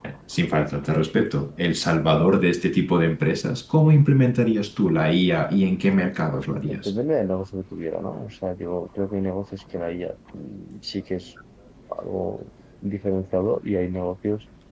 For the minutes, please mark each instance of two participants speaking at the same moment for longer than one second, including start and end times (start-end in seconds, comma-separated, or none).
none